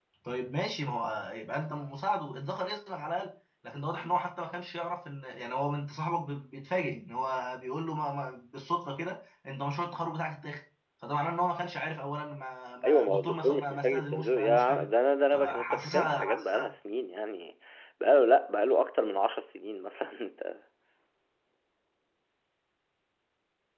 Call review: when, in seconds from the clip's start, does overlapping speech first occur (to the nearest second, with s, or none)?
13 s